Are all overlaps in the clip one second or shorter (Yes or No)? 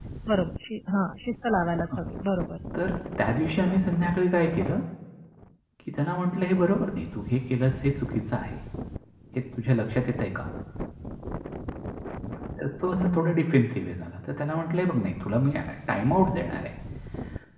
Yes